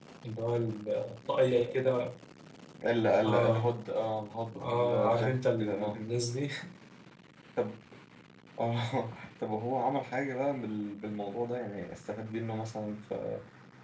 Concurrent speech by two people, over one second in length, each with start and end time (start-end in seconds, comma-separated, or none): 4.6-6.0